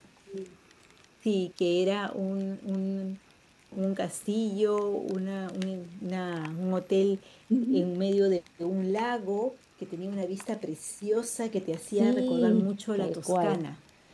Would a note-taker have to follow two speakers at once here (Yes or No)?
Yes